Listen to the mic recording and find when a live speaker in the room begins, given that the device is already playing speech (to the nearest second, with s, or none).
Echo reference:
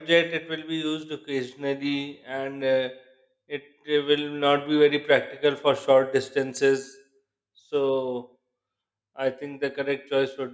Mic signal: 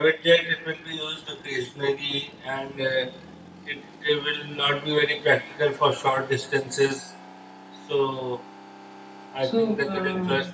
9 s